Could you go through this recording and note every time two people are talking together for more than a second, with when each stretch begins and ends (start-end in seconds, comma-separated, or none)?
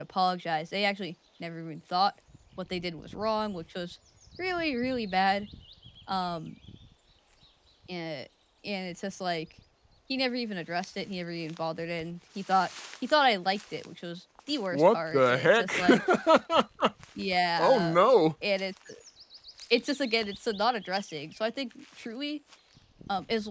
14.7-16.0